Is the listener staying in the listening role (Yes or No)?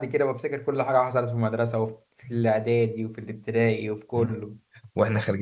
No